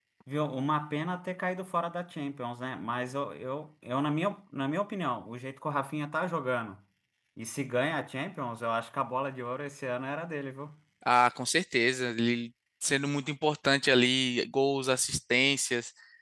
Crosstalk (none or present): none